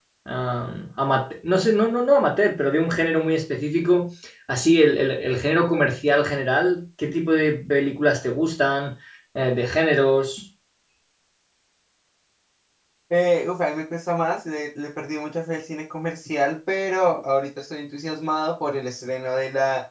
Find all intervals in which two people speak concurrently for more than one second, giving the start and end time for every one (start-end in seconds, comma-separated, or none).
none